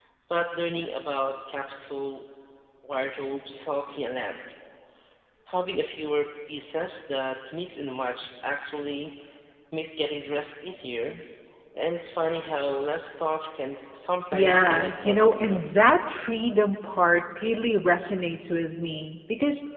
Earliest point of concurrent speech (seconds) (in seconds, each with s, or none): 14.3 s